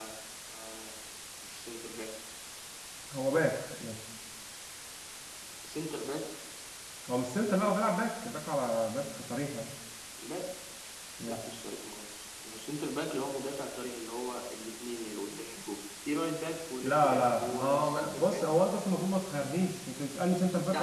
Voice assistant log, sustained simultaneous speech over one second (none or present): present